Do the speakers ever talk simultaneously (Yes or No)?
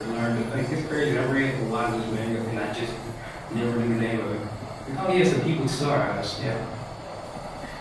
No